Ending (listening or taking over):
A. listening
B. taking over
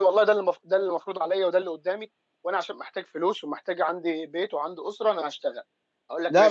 B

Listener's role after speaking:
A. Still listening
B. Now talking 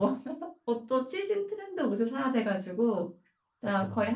A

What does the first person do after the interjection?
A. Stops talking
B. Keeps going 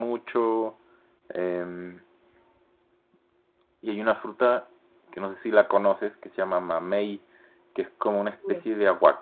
B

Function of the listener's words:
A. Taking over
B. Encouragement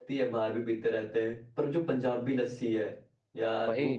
A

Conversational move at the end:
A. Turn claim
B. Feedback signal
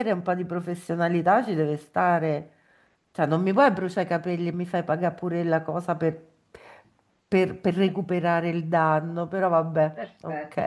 A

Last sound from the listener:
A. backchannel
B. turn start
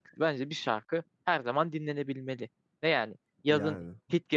A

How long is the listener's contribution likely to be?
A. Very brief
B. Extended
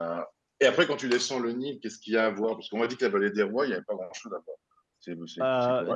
B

